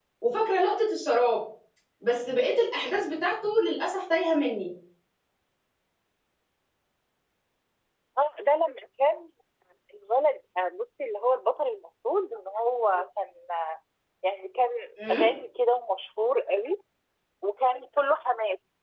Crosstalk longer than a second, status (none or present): none